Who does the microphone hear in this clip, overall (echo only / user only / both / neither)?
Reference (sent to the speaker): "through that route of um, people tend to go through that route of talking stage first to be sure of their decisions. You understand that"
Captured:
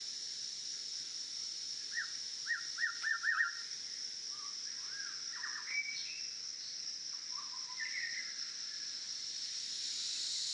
neither